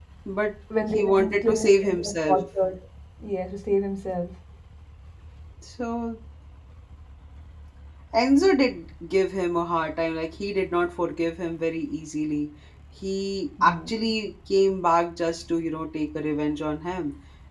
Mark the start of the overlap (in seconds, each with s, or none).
0.9 s